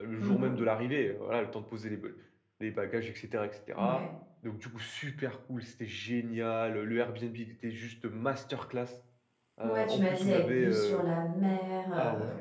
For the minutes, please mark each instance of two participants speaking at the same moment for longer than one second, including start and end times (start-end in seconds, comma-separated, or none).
9.6-11.0